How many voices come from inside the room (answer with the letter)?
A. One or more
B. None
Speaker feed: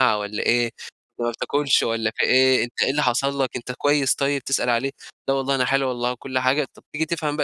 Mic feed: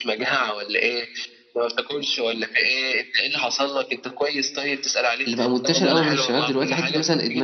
A